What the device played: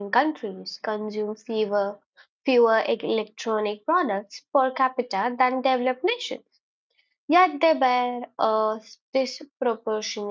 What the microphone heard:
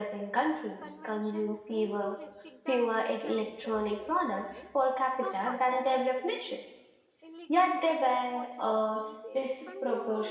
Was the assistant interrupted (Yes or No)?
Yes